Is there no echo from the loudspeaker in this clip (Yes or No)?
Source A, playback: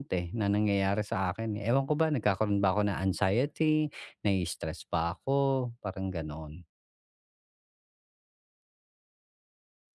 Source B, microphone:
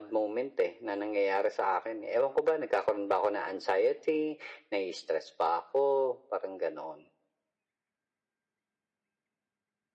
No